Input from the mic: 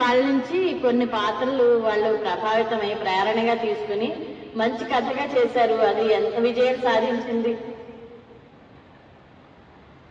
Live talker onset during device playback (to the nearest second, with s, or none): none